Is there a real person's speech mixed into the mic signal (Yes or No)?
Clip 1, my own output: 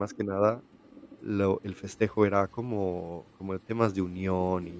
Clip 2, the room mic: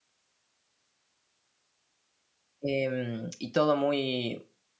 Yes